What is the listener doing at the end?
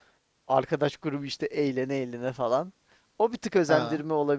listening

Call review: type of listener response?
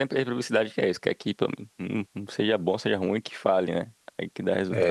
taking over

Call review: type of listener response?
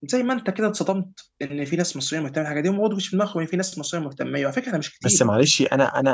taking over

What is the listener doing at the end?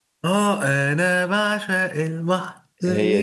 listening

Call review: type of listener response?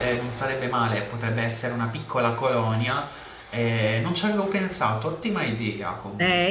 taking over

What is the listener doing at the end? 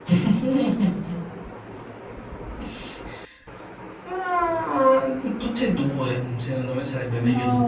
taking over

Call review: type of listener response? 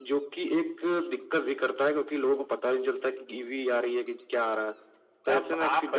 taking over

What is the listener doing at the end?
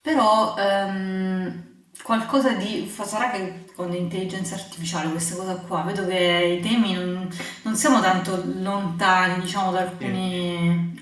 listening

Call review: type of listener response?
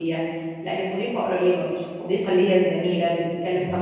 listening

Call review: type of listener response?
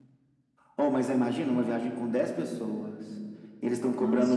listening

